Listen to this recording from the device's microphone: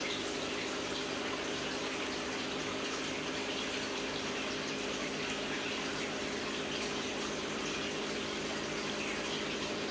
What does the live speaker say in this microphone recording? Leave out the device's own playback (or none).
none